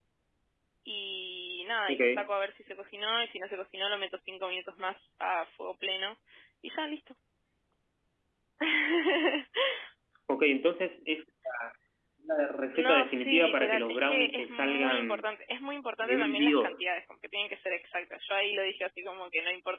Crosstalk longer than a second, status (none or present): present